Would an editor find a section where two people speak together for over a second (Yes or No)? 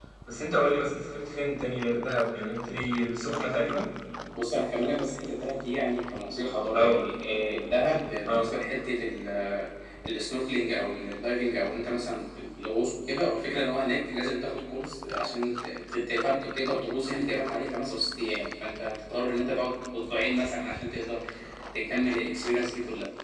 No